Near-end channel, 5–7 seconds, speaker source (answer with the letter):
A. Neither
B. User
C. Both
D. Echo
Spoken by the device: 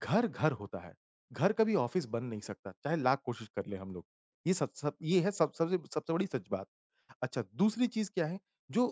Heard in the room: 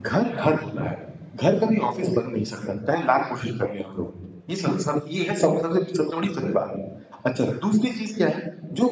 D